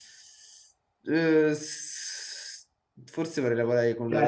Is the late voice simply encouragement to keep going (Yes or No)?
No